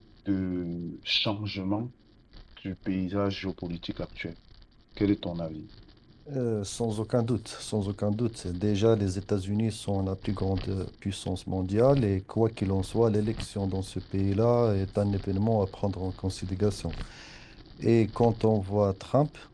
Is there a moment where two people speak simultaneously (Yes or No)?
No